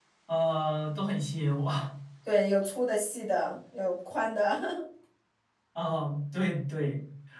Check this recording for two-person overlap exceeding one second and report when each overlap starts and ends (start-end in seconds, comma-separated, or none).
none